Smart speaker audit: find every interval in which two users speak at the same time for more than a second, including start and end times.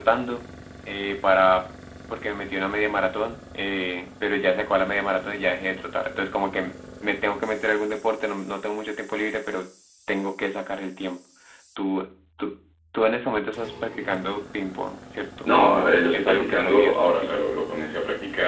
15.5-17.4

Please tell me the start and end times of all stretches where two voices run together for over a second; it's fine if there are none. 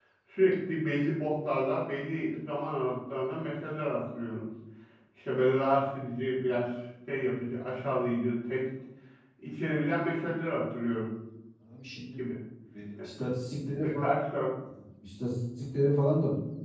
none

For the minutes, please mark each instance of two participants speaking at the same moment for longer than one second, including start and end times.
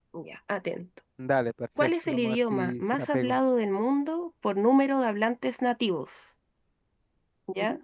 1.8-3.4

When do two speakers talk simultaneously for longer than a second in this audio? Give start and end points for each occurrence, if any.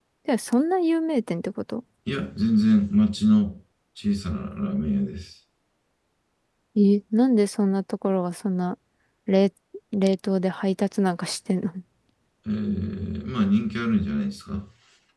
none

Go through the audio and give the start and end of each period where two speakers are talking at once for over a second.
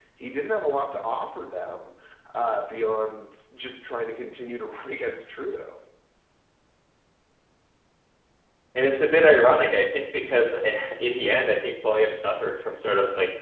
none

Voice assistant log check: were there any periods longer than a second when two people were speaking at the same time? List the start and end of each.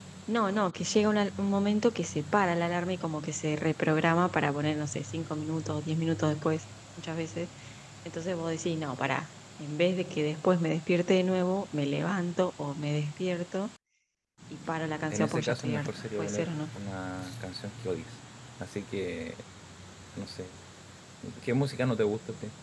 15.1-16.5

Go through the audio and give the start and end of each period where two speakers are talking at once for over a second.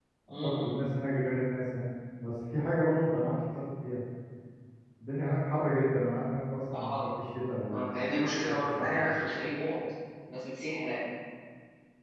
7.7-9.0

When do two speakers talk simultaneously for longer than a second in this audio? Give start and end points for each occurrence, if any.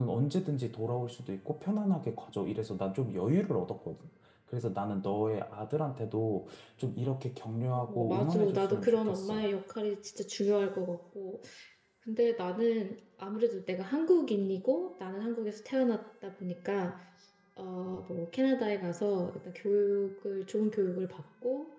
7.9-9.4

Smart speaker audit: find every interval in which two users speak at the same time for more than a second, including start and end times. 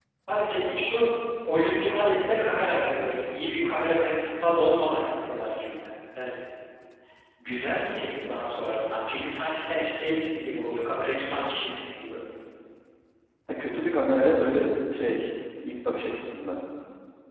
none

